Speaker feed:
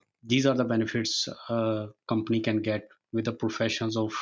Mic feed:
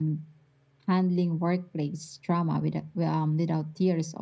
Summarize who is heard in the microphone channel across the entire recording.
user only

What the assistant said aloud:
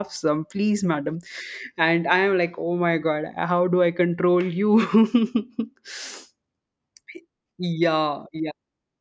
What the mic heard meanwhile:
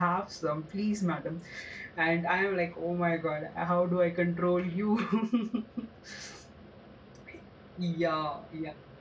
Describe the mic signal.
echo only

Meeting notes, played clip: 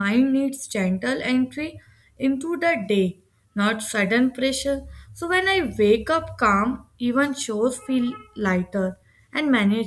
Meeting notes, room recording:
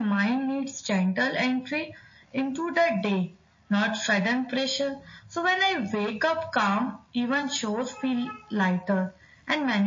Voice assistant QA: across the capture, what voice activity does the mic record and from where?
echo only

